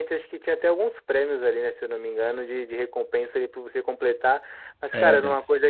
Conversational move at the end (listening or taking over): listening